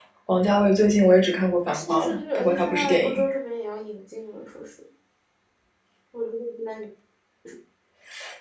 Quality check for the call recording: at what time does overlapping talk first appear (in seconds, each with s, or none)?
1.7 s